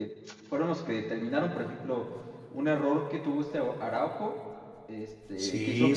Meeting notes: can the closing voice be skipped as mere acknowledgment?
Yes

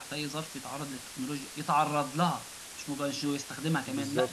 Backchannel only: No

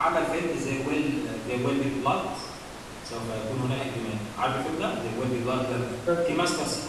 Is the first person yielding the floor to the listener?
No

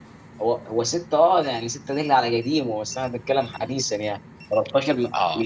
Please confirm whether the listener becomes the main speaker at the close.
Yes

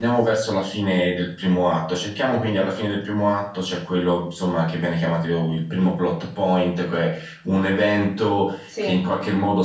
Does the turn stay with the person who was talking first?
Yes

